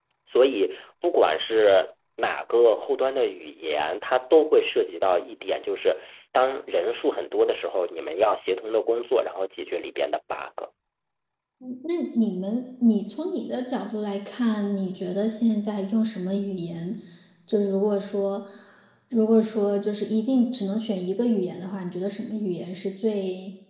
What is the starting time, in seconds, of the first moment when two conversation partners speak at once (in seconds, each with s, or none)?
none